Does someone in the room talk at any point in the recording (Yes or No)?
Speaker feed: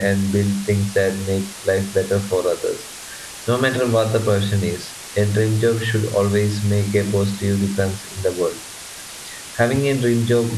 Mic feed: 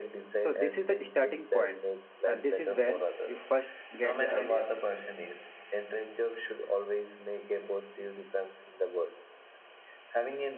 Yes